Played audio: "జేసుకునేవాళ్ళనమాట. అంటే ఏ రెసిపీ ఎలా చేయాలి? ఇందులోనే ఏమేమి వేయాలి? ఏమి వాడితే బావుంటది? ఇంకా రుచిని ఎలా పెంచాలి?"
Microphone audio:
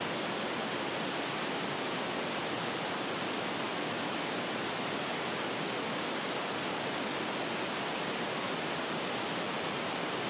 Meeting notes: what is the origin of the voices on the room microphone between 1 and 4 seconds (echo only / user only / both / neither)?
neither